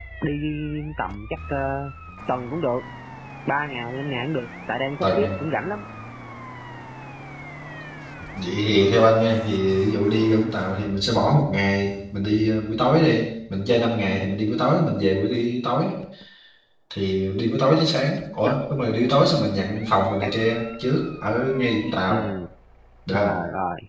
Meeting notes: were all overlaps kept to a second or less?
Yes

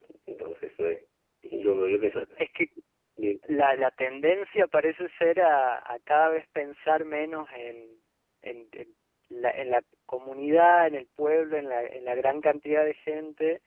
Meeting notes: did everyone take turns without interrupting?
Yes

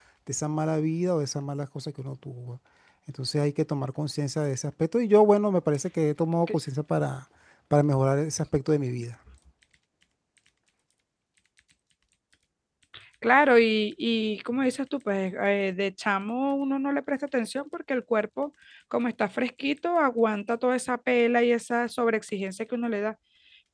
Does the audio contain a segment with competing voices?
No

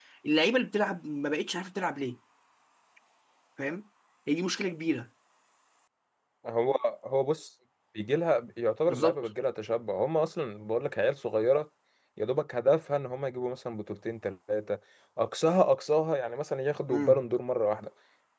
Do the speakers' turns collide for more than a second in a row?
No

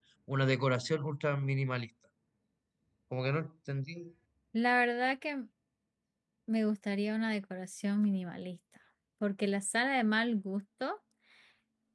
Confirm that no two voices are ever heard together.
Yes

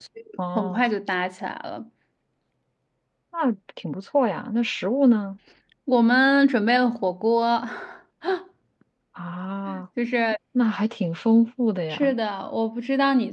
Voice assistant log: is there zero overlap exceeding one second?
Yes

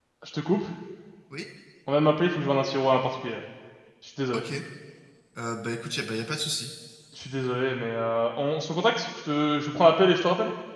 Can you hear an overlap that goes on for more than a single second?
No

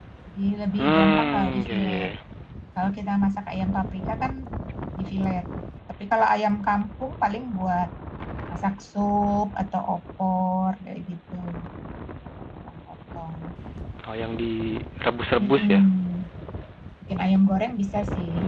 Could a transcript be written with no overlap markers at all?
No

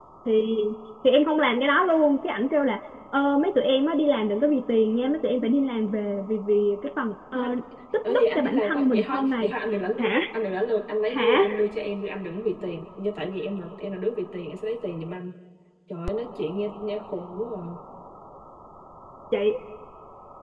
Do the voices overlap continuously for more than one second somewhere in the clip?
Yes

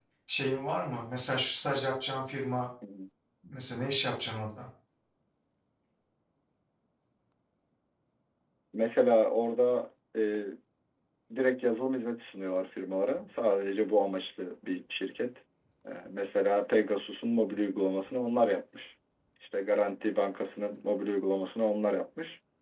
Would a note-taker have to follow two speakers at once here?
No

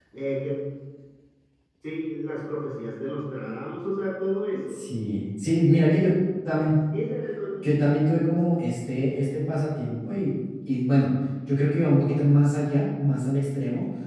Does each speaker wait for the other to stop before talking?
Yes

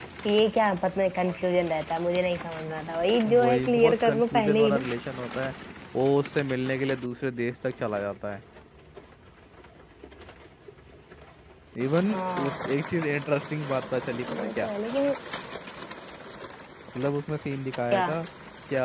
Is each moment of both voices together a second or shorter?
No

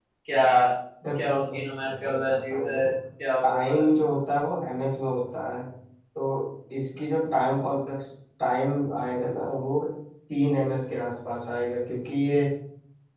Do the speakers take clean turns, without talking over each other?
No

